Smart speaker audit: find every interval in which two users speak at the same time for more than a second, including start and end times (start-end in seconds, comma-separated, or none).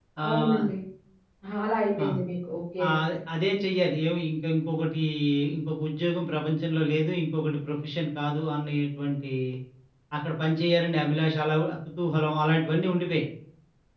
none